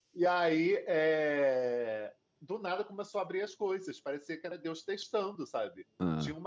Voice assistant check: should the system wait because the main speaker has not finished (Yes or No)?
Yes